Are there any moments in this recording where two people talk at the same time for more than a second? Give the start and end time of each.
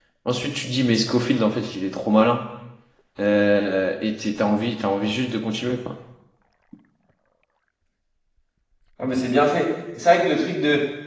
none

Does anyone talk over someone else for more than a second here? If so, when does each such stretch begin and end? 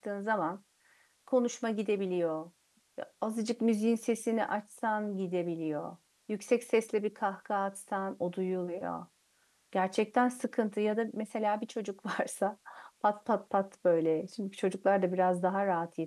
none

